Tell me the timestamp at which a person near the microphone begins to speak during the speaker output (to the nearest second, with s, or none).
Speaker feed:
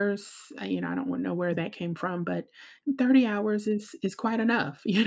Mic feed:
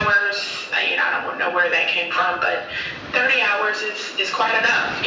none